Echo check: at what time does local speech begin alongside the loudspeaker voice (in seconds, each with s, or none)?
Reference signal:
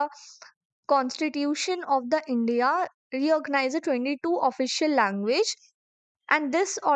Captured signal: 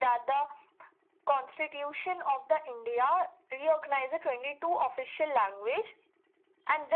none